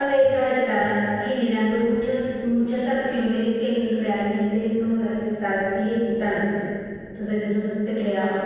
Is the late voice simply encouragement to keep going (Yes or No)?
Yes